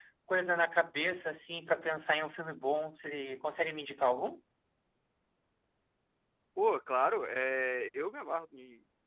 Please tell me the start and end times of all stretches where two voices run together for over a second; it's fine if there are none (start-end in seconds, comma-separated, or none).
none